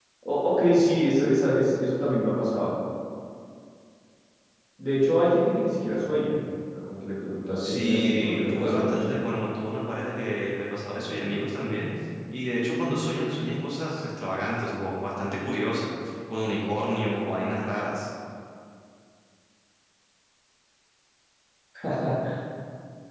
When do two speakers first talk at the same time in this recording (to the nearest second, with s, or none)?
8 s